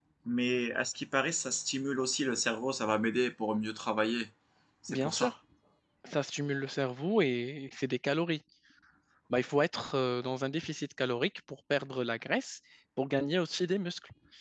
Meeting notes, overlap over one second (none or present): none